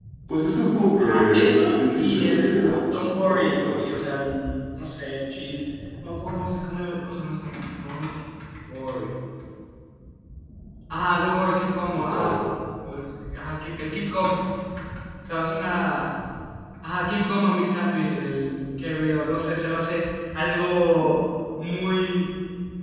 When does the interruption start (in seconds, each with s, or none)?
1.0 s